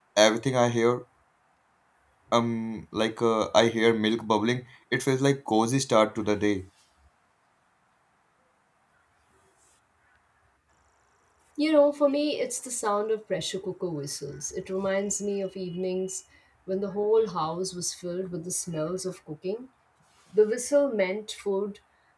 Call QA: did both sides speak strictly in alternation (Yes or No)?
Yes